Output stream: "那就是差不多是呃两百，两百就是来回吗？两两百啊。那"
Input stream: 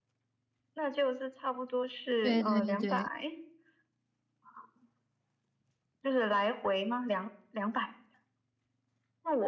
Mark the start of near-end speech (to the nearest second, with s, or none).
2 s